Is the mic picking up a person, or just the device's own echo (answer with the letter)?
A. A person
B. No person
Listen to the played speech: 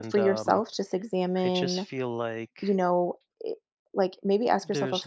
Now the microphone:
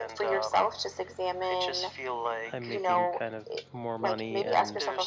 A